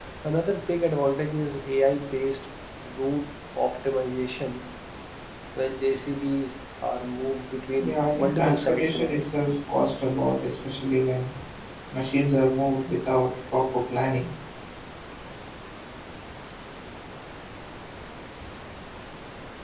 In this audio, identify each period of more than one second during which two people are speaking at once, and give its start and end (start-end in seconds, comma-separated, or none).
7.8-9.3